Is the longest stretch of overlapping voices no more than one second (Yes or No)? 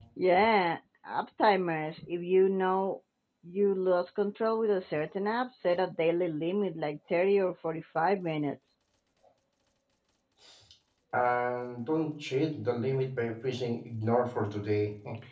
Yes